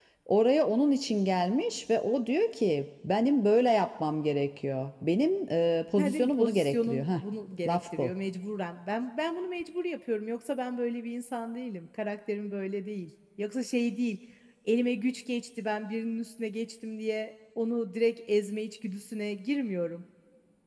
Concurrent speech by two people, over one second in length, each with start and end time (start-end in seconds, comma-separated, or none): 6.0-7.2